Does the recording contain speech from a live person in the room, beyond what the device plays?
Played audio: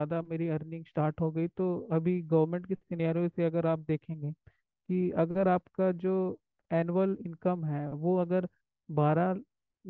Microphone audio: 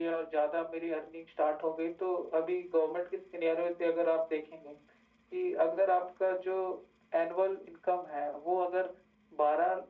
No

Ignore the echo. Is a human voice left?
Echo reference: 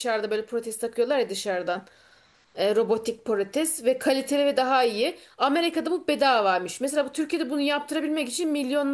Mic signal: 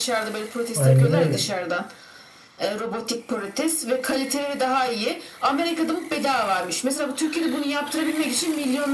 Yes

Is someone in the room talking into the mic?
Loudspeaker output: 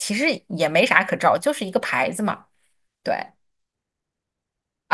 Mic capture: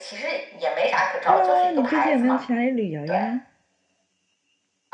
Yes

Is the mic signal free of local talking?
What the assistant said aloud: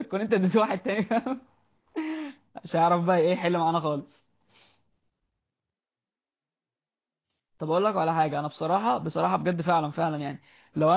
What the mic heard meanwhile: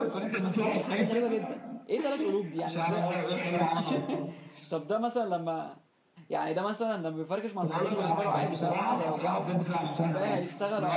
No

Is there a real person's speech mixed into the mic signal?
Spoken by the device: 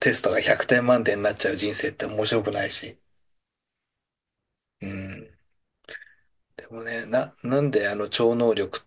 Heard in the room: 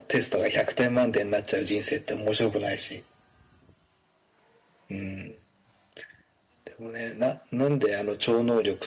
No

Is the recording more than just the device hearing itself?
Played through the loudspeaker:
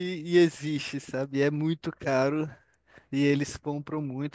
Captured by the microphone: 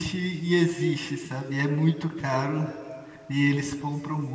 No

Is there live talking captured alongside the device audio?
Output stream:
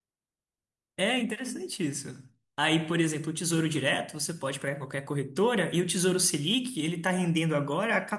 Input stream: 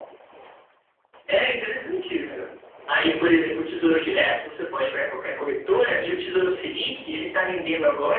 No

